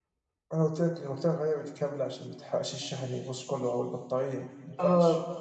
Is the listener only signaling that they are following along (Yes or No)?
No